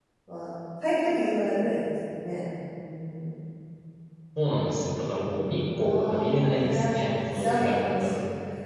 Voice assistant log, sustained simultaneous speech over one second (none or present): present